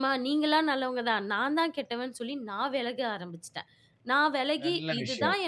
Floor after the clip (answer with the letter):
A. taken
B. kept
B